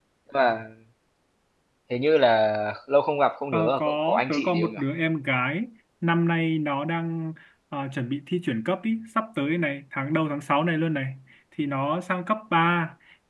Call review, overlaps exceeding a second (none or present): present